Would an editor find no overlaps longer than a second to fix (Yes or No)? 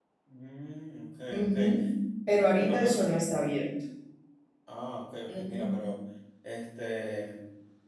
Yes